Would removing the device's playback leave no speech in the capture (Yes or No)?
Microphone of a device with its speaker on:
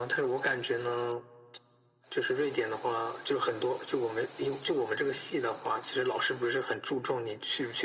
Yes